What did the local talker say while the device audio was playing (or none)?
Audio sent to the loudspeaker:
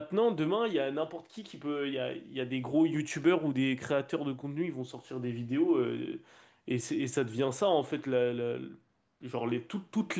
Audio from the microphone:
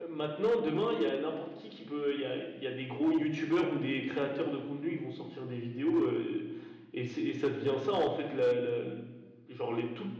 none